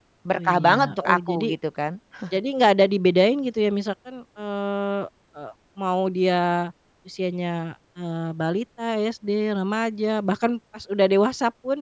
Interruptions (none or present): present